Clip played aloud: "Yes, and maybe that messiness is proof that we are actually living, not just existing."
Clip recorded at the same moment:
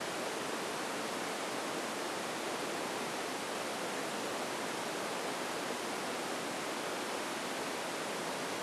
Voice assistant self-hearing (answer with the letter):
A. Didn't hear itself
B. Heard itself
A